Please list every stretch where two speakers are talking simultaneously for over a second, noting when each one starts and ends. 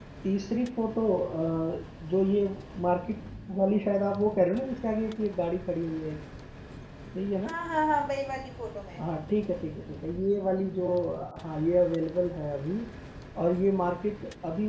none

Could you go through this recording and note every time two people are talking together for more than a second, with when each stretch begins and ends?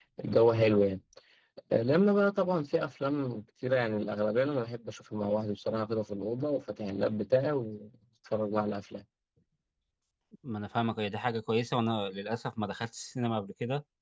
none

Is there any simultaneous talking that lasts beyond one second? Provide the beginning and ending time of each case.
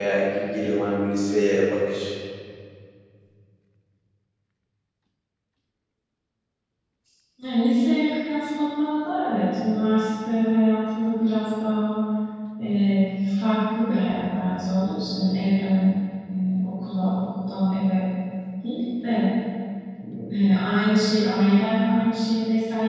none

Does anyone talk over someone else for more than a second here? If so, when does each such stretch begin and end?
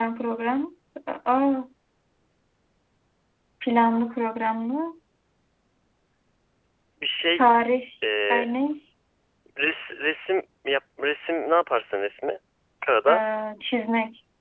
none

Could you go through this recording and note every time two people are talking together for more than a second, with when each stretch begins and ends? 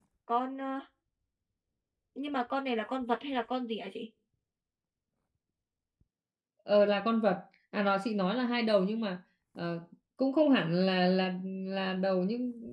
none

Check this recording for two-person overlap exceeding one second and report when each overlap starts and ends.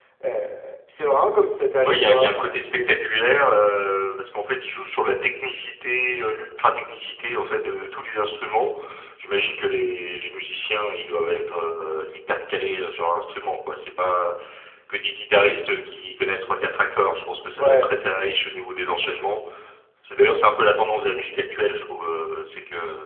1.8-3.3

